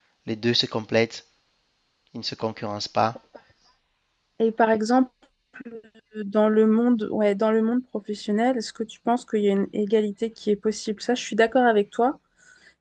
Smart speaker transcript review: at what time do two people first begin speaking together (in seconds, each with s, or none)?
none